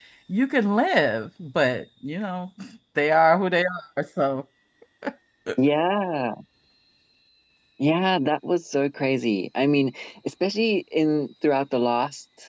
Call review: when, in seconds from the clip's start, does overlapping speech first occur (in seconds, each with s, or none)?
none